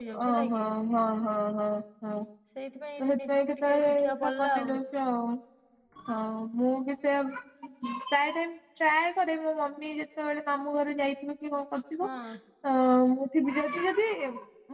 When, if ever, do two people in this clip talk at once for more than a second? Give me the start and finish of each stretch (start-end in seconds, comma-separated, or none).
3.0-4.5